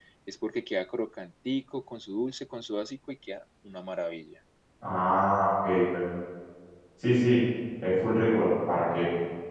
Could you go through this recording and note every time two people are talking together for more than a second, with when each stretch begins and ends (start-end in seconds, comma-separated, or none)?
none